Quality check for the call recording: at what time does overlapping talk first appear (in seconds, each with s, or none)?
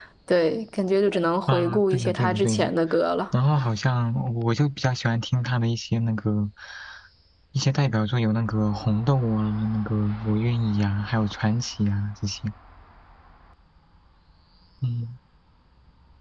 1.5 s